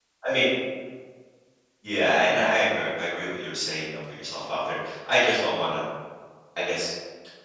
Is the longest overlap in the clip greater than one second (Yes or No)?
No